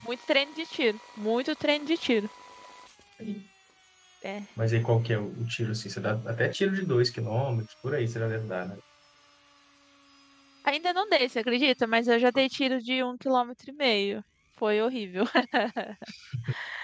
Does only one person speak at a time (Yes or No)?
Yes